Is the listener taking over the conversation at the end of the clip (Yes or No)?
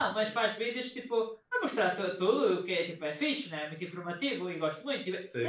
Yes